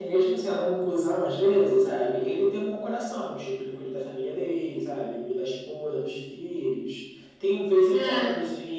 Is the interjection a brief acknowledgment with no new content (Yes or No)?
Yes